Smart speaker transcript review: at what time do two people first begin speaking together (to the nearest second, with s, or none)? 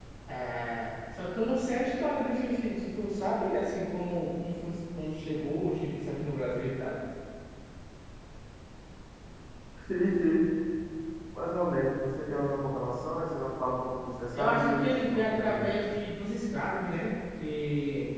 14 s